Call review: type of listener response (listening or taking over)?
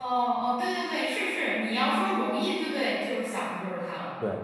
taking over